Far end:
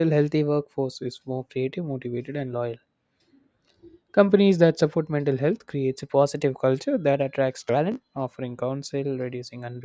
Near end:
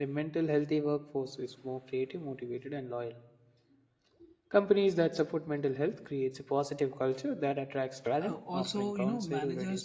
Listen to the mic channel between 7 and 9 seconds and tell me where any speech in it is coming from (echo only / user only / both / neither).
both